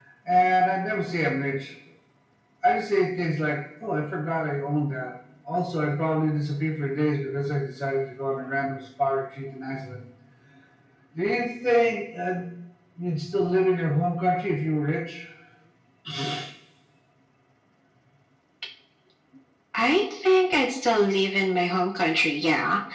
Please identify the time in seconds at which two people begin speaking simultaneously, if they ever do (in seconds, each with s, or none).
none